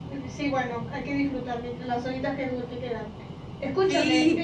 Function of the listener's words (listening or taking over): listening